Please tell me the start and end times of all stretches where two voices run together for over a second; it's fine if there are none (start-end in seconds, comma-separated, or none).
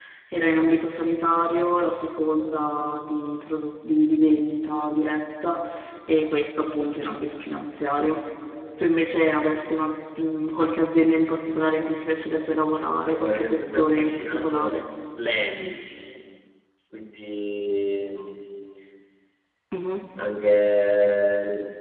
13.1-14.7